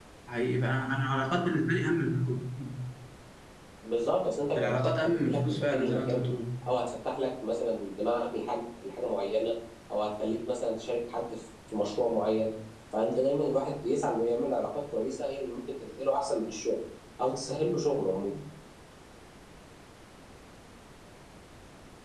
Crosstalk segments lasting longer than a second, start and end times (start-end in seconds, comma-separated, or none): 4.6-6.2